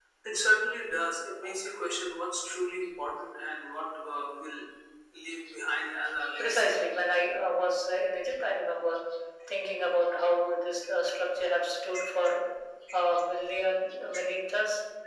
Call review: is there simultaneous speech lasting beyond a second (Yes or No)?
No